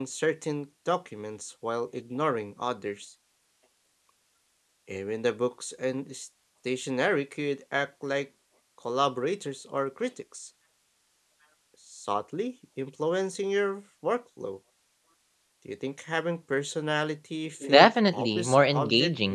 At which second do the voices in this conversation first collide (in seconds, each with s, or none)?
17.6 s